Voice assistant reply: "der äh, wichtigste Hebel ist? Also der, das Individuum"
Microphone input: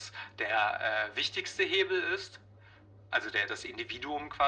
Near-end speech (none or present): none